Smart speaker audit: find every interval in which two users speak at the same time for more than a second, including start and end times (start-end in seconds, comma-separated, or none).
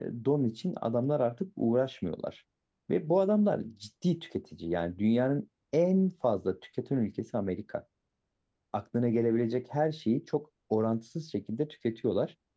none